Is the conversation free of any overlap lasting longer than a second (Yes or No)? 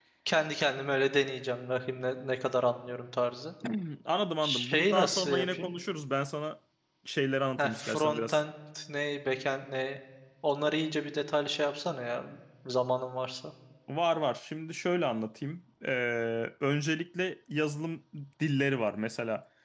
No